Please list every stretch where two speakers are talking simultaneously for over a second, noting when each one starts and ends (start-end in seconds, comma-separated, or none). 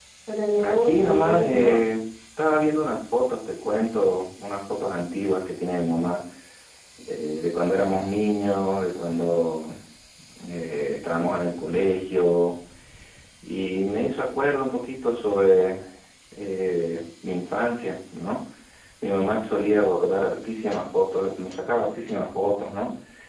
0.6-1.9